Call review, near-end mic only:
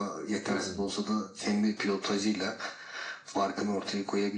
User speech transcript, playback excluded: Hmm.

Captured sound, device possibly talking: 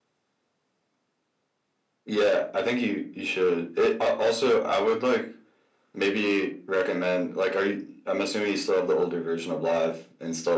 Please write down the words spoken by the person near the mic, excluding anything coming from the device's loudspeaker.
none

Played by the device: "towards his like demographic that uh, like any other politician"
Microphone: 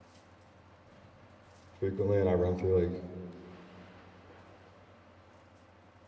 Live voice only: frequently and I run through like

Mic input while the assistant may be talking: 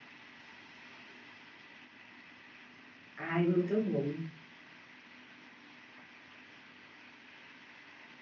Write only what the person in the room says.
ai, muito bom.

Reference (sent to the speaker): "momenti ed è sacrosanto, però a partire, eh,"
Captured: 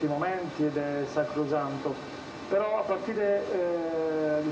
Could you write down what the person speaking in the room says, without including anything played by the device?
none

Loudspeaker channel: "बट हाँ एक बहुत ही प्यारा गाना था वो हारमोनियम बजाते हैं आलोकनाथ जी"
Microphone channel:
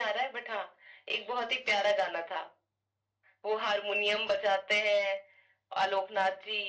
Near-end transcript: none

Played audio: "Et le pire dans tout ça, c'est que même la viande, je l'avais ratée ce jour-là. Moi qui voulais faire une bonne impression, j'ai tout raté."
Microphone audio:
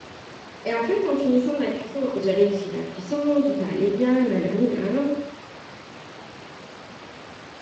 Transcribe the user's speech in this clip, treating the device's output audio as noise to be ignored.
Et en fait, en finissant la cuisson, hein, j'ai réussi la cuisson, tout allait bien, nanani, nanana.

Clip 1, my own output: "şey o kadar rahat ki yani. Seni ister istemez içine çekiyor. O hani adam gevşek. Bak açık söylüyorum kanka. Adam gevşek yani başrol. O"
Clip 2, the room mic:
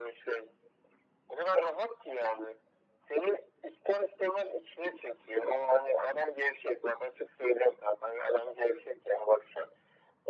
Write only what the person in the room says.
none

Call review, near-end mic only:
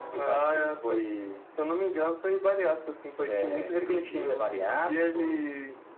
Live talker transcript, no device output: none

